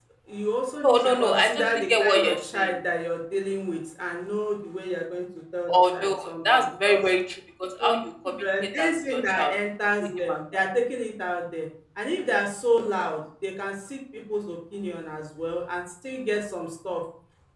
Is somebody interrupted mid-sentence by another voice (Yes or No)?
Yes